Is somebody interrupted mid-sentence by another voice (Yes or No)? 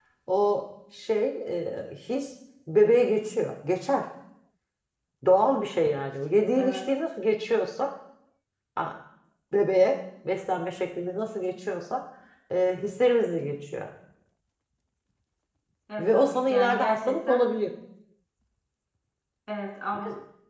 Yes